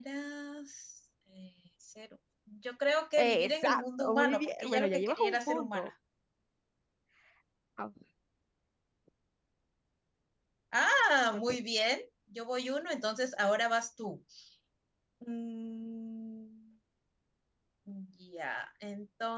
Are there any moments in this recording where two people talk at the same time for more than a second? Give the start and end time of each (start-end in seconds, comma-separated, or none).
3.2-5.9